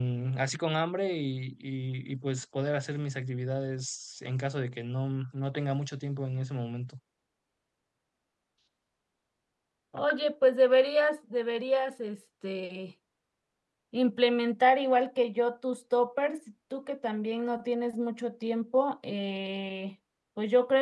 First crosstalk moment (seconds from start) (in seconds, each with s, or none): none